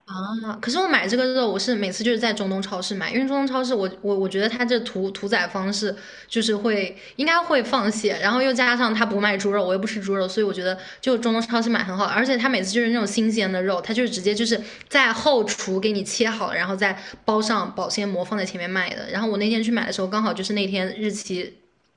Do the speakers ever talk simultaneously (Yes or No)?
No